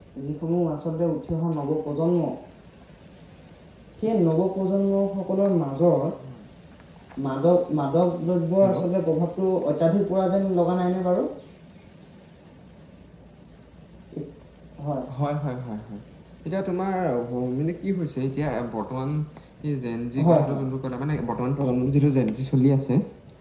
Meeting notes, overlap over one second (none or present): none